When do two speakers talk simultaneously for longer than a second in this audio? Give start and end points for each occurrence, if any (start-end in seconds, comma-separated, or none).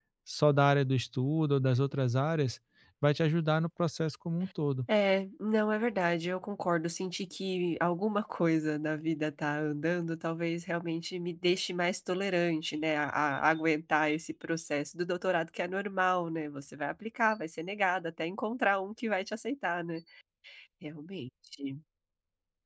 none